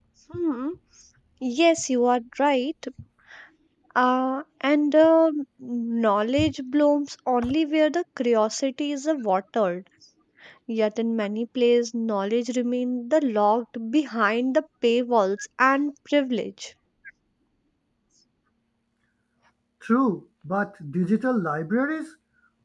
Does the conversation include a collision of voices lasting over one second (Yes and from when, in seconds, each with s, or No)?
No